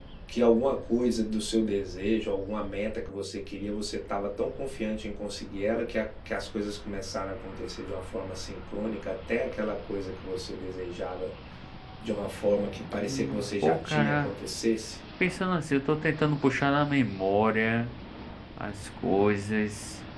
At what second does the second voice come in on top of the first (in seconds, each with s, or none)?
13.1 s